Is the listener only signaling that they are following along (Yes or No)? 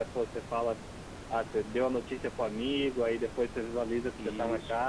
Yes